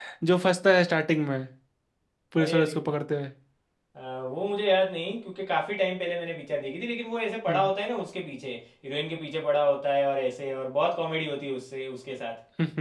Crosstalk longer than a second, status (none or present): none